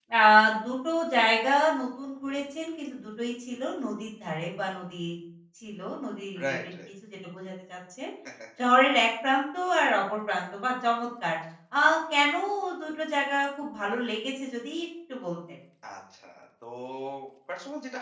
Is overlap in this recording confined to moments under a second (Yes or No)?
Yes